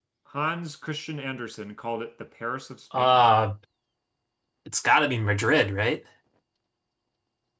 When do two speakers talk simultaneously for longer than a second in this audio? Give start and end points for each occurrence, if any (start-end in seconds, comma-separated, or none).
none